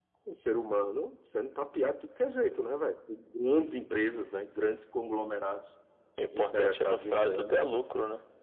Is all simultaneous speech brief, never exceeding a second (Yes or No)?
No